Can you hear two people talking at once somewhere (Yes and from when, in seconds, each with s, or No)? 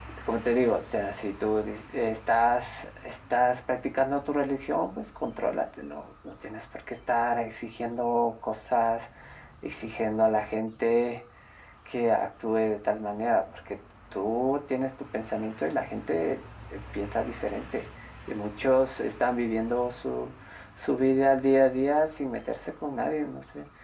No